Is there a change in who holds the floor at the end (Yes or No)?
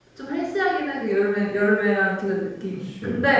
No